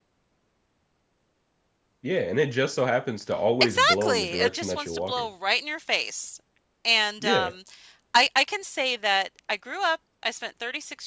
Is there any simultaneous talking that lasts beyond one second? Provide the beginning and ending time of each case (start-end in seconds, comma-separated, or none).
3.6-5.3